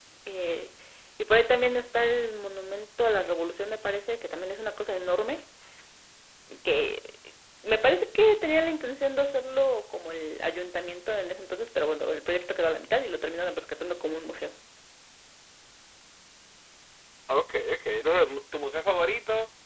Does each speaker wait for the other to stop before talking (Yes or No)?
Yes